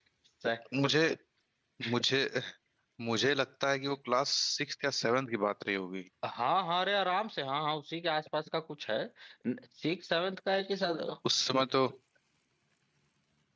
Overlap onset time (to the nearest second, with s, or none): none